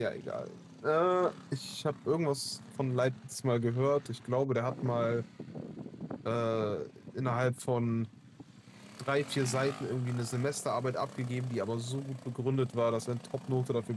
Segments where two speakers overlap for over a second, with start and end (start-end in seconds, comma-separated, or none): none